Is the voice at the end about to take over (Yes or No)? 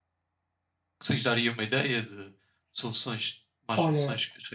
Yes